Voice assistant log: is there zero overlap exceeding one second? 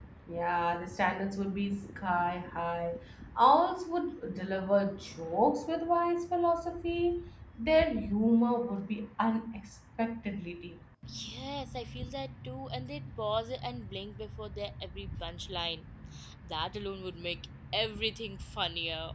Yes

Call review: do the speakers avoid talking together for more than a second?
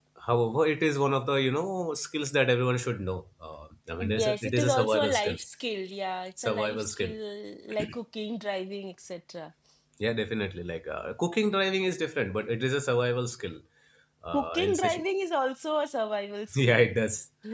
No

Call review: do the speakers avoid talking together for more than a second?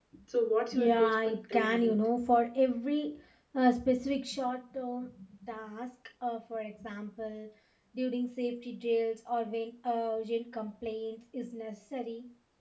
No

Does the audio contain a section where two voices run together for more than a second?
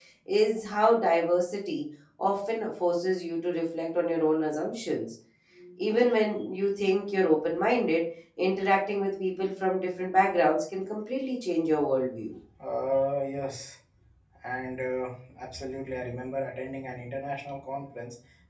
No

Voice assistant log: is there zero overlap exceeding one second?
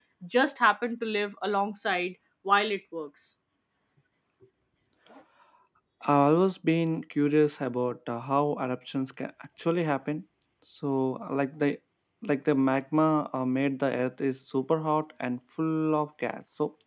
Yes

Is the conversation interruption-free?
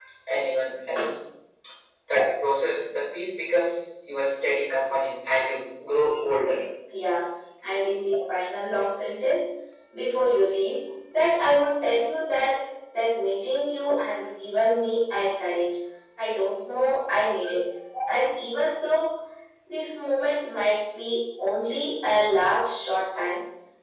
Yes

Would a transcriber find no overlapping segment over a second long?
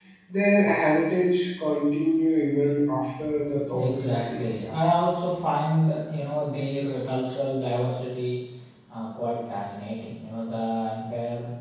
No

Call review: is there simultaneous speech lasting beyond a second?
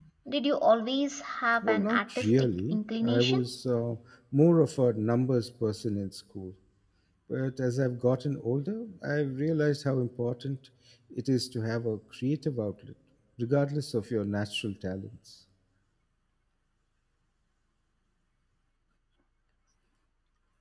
Yes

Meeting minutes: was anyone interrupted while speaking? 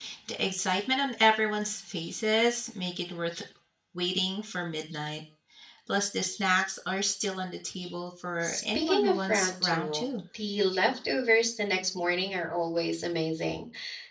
Yes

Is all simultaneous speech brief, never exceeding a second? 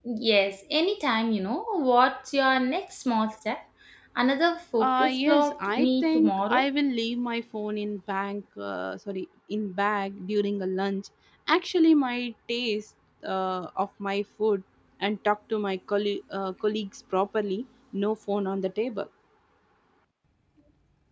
No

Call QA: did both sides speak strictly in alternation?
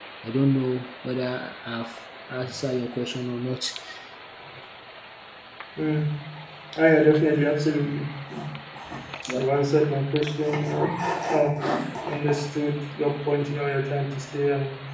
Yes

